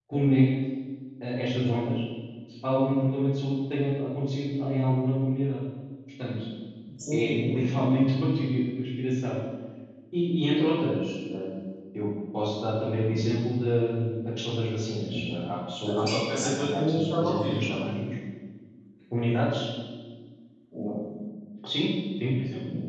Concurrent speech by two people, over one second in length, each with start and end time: 15.9-17.7

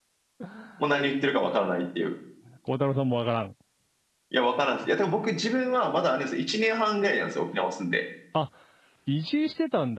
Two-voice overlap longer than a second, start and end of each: none

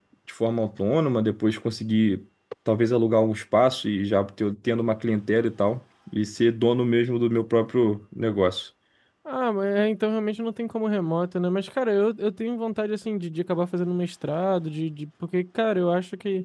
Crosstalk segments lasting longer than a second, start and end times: none

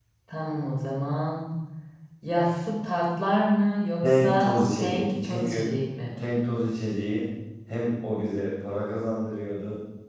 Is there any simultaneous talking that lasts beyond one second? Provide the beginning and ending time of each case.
4.0-5.7

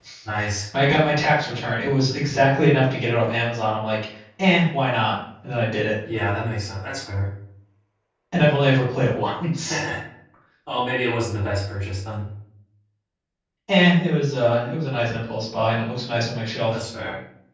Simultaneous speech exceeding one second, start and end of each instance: none

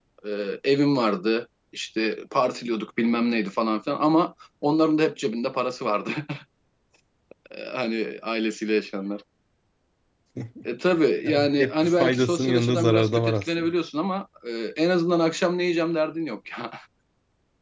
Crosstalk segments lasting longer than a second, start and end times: 11.2-13.7

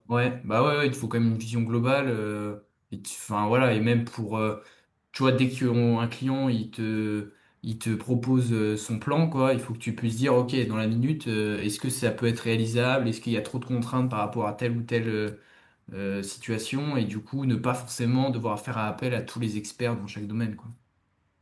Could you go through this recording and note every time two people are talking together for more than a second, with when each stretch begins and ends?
none

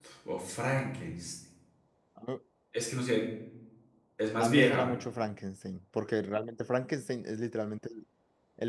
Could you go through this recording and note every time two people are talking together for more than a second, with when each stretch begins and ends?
none

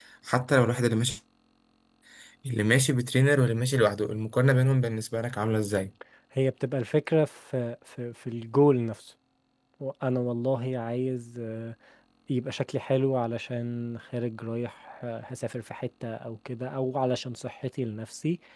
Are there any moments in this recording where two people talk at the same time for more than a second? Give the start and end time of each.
none

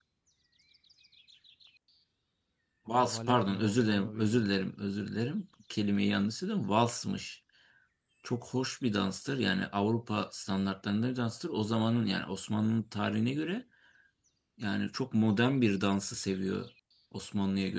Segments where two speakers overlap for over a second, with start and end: 3.0-4.5

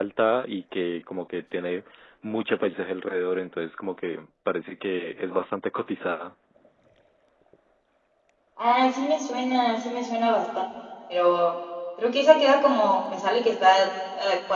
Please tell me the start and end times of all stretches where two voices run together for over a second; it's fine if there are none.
none

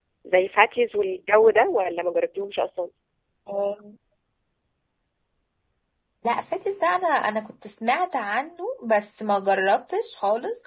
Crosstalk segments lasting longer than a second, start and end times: none

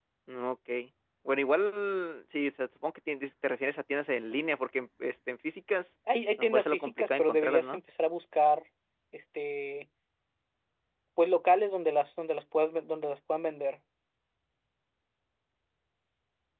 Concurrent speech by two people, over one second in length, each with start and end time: 6.4-7.8

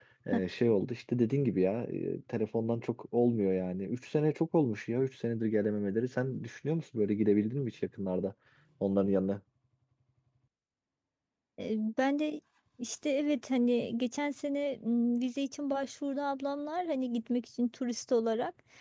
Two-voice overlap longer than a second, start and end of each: none

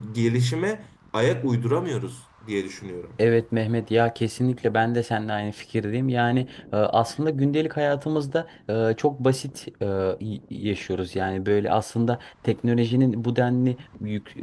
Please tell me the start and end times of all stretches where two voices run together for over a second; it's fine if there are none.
none

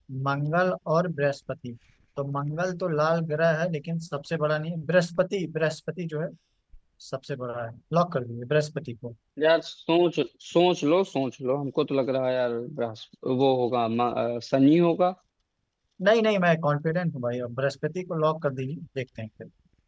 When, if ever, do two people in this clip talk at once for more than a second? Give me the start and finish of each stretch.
none

